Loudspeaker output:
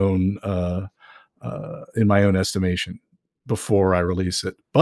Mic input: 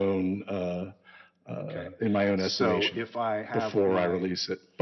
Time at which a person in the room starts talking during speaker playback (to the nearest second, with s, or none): 2 s